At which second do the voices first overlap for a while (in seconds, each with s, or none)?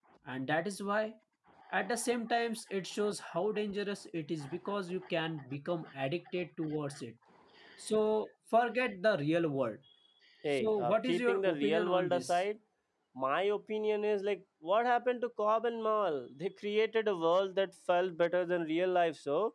10.6 s